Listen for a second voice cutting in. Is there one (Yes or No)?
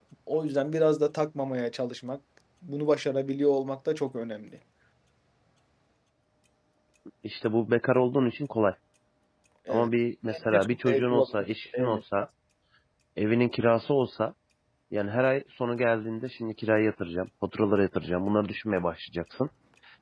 Yes